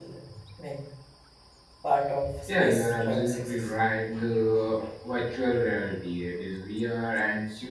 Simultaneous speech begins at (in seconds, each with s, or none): 2.5 s